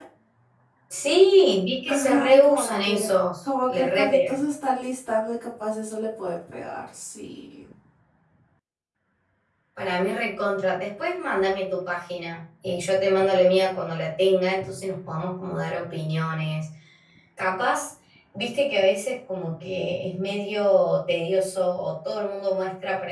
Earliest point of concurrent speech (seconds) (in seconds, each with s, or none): 1.9 s